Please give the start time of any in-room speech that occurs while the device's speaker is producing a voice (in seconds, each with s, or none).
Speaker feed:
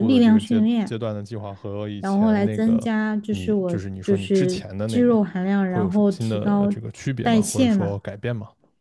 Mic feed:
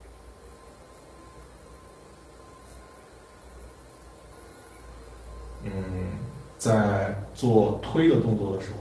5.6 s